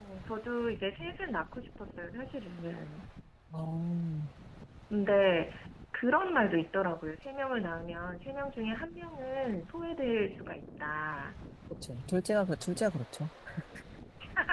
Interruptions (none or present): none